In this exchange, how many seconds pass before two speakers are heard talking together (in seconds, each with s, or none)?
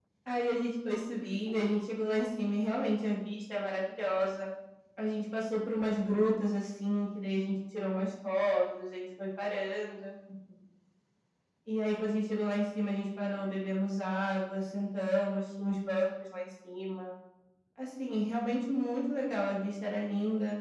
none